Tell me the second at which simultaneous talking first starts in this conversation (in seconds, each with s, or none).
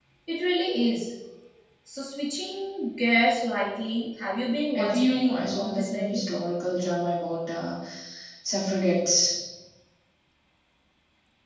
4.7 s